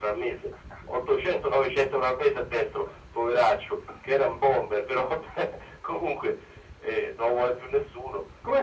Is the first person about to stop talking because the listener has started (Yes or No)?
Yes